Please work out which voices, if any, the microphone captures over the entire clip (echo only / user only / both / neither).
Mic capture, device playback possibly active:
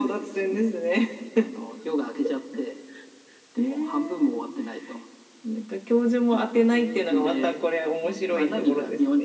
both